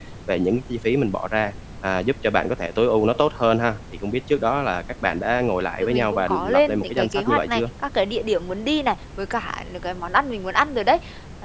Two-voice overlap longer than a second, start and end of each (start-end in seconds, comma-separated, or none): 5.8-7.6